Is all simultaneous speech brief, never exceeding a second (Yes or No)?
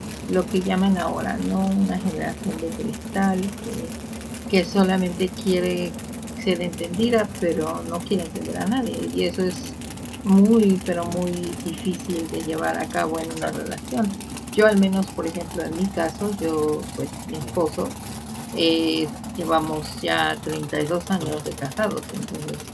Yes